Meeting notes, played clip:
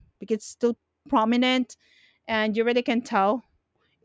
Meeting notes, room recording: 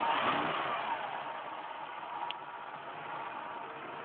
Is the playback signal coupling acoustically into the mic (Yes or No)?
No